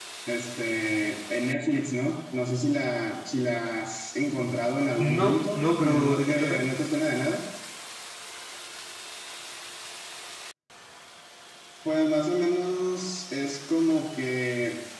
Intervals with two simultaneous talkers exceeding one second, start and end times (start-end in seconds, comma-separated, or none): 5.0-6.6